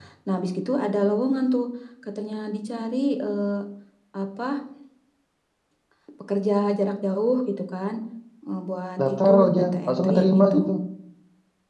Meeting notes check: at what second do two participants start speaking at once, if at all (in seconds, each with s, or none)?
9.1 s